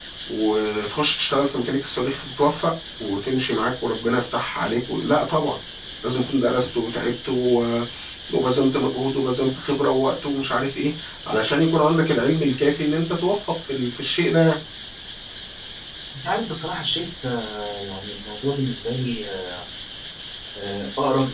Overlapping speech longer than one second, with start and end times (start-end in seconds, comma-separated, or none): none